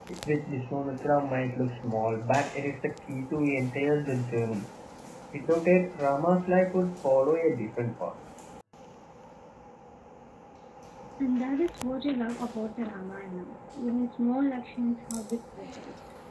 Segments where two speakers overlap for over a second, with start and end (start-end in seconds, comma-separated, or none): none